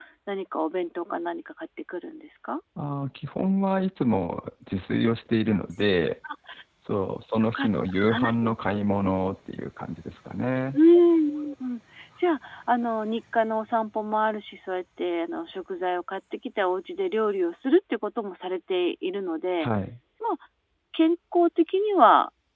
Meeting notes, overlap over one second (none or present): none